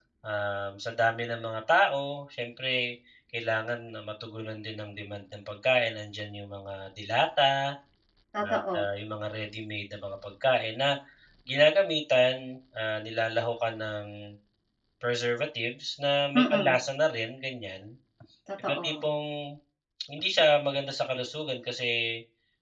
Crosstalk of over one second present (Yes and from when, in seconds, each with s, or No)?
No